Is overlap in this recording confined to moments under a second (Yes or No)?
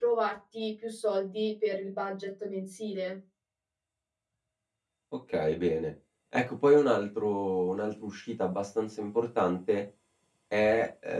Yes